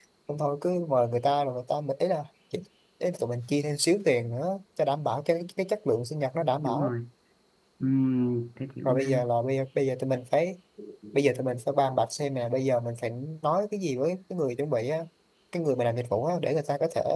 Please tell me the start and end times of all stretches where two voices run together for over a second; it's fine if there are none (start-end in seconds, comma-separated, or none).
none